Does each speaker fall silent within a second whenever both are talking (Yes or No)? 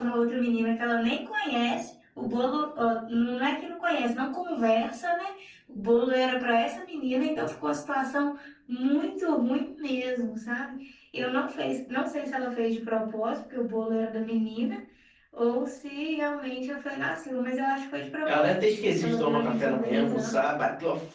No